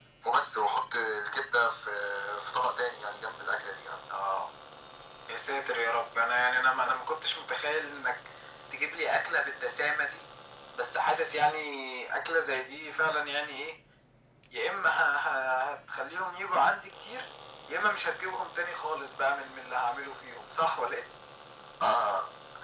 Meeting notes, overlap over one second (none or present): none